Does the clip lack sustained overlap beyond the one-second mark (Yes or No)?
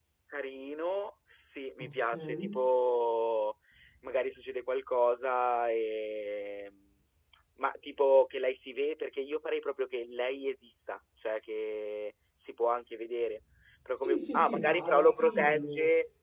No